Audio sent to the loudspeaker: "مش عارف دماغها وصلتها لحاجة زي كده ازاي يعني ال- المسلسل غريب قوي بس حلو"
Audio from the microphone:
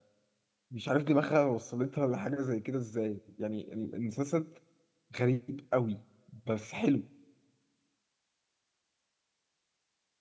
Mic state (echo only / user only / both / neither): echo only